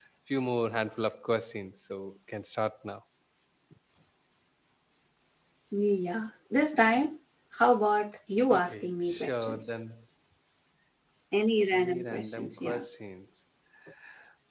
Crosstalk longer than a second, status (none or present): present